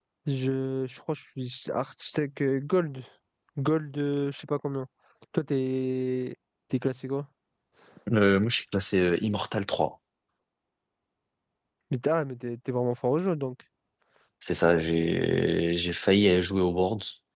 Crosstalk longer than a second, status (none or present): none